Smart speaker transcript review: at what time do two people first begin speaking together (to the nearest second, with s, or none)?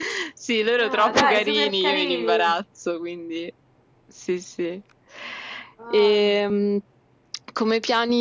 1 s